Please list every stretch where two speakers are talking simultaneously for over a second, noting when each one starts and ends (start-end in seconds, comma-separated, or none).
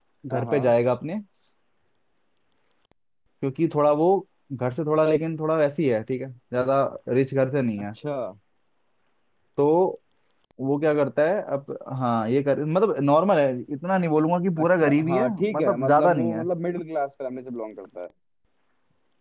14.6-16.4